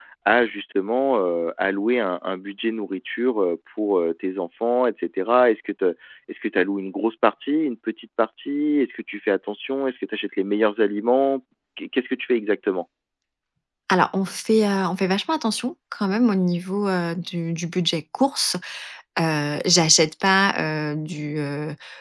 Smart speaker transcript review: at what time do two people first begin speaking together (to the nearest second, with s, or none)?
none